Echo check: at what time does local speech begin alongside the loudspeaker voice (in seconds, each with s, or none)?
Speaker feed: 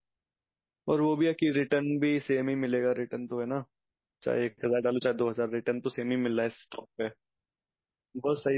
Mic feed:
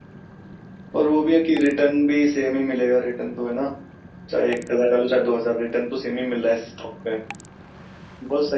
none